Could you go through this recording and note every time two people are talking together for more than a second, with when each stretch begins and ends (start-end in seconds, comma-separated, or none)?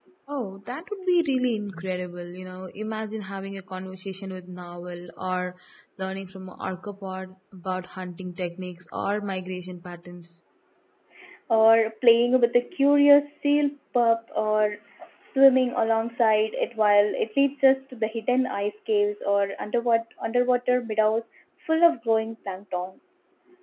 none